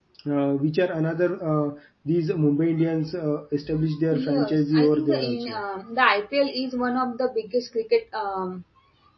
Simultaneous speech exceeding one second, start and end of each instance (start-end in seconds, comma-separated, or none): 4.1-5.6